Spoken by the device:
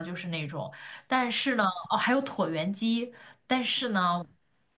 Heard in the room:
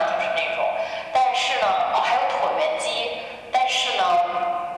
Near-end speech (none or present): none